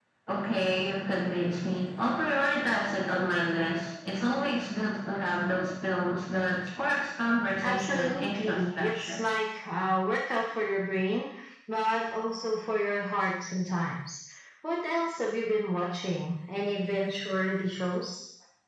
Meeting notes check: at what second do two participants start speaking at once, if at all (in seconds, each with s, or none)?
7.6 s